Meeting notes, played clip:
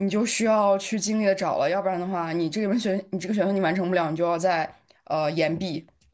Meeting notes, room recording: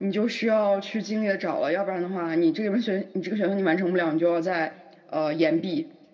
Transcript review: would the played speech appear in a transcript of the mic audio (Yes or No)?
Yes